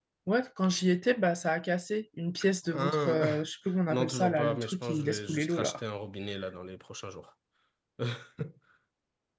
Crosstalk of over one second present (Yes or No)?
Yes